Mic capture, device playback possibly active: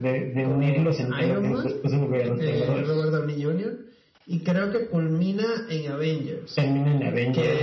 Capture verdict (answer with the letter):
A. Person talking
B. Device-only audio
B